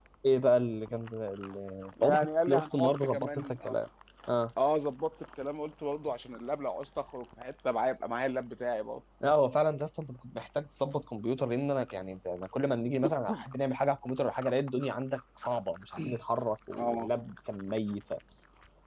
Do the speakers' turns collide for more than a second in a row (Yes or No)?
Yes